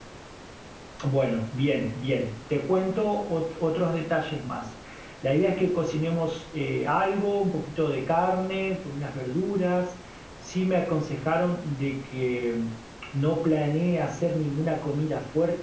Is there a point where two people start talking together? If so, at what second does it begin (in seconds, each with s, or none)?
none